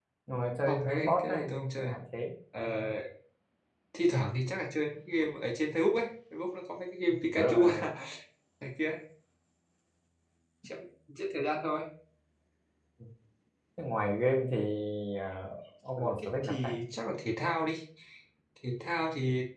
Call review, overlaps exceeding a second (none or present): present